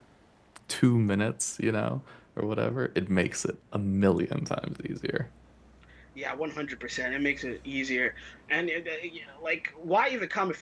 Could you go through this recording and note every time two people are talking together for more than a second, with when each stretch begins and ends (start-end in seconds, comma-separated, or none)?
none